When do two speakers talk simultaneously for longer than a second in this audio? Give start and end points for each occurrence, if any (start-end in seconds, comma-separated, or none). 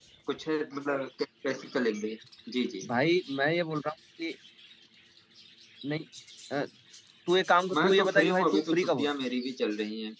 7.7-9.1